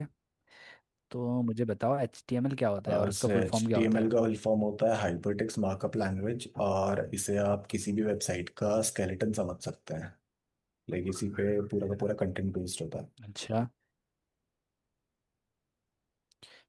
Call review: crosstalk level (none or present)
present